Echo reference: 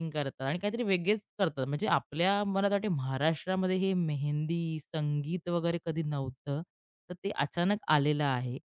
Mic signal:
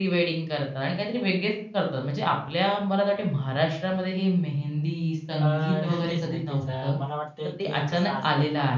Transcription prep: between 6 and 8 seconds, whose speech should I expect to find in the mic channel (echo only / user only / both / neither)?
both